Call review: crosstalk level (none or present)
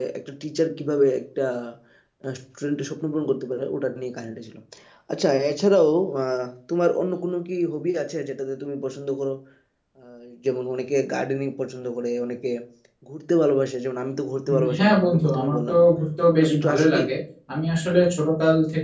present